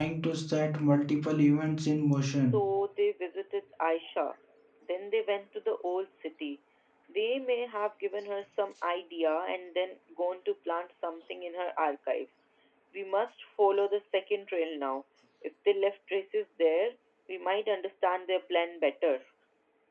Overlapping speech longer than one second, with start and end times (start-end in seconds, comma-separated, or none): none